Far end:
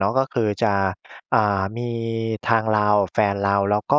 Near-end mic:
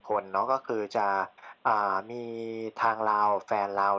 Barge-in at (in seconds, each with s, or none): none